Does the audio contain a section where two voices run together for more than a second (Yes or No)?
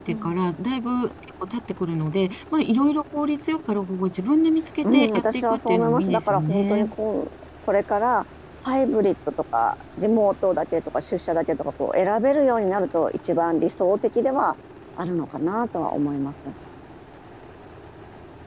Yes